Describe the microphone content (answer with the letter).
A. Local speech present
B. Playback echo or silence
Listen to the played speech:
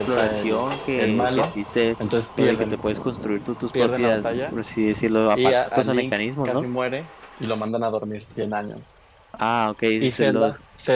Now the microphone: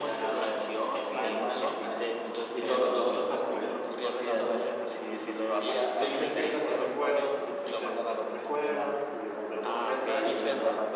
A